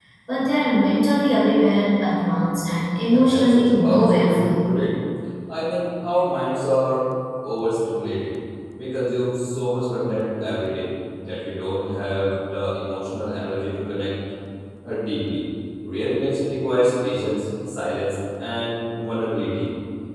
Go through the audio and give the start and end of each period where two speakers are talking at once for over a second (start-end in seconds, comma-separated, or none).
3.1-4.7